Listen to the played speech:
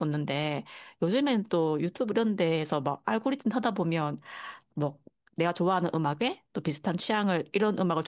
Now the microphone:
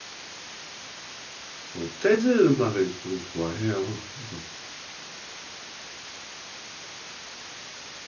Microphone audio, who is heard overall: user only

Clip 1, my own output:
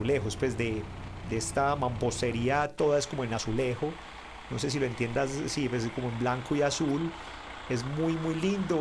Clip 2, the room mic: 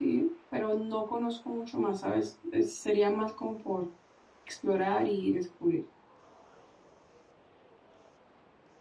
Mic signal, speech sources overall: user only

